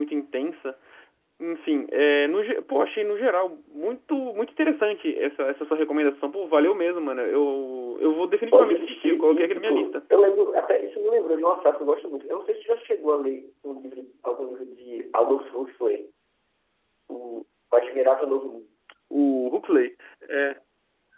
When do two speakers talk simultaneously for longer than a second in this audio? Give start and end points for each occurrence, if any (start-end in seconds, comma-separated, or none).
8.5-9.9